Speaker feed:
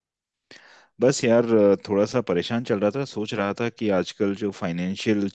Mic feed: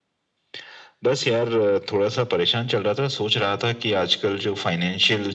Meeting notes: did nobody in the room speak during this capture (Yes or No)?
Yes